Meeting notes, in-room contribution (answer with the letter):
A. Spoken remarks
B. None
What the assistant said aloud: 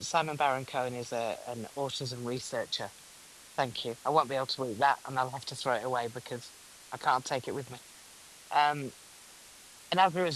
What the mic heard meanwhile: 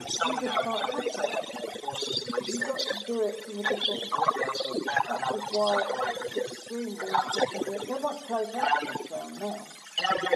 A